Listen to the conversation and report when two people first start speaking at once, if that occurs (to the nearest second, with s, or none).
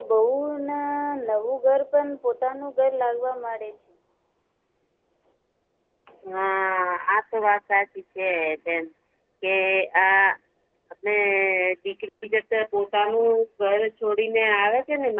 none